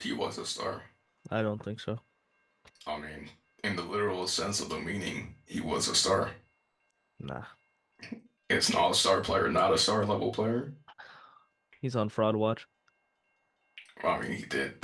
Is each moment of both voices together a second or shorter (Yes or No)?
Yes